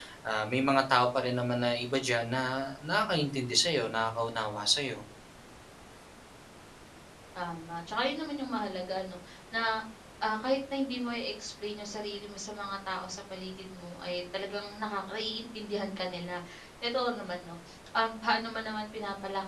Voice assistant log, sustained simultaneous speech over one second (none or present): none